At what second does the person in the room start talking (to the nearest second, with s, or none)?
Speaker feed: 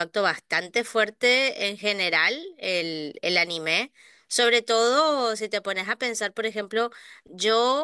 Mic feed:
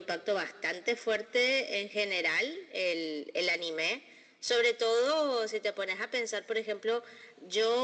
none